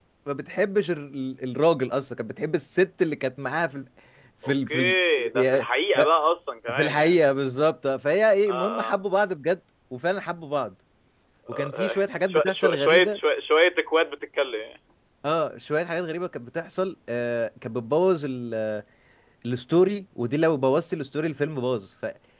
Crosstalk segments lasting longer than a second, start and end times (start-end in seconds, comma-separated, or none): 11.5-13.2